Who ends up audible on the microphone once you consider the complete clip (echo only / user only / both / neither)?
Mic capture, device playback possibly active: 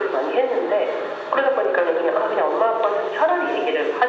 echo only